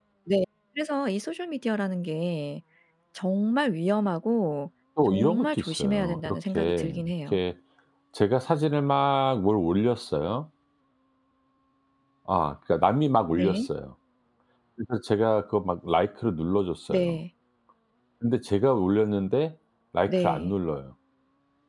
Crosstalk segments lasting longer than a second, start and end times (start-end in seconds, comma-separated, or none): 5.1-7.4